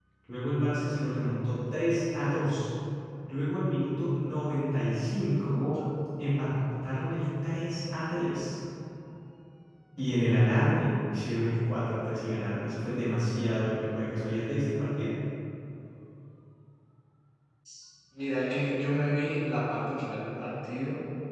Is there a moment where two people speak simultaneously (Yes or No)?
No